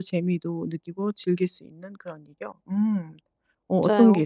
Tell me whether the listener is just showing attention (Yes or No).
No